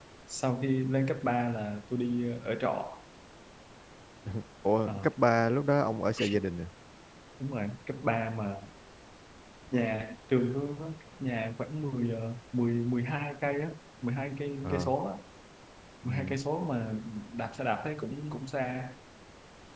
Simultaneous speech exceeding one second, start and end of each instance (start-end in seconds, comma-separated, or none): none